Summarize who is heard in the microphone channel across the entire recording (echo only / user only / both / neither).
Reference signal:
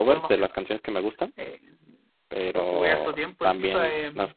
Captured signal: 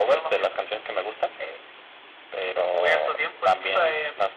echo only